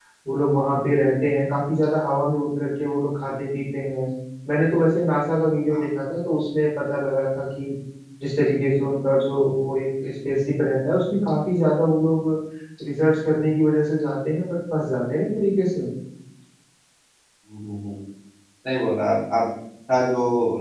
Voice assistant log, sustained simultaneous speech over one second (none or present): none